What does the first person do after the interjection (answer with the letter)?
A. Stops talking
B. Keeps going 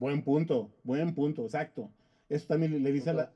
B